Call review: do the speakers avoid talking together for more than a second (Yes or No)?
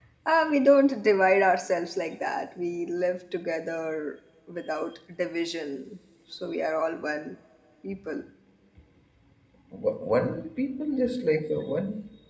Yes